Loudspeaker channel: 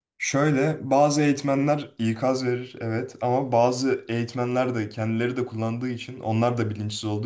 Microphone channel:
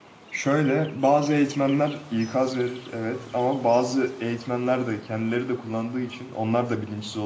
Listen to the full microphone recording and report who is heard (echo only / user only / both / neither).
echo only